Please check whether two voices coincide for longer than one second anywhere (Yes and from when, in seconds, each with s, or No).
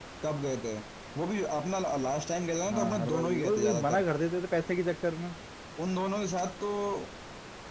Yes, from 2.6 s